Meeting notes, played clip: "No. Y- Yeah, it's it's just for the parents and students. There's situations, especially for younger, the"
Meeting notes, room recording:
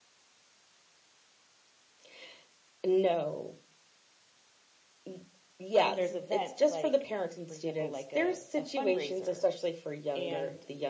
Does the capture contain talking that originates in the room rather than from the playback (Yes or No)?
Yes